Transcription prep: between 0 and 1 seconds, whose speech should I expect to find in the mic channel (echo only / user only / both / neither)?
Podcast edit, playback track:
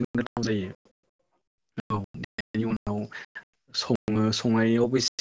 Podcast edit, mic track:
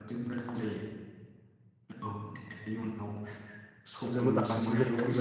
echo only